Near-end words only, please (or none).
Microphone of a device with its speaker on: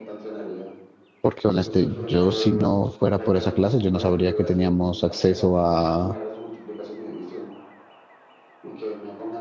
porque honestamente yo si no fuera por esa clase yo no sabría que teníamos acceso a,